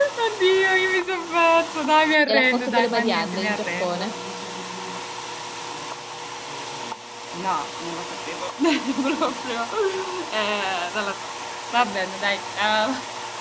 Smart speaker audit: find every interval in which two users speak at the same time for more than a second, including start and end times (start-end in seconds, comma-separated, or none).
2.3-4.1